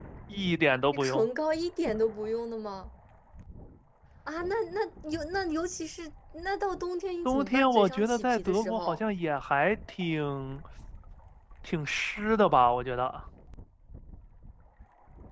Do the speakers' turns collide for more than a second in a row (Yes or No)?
Yes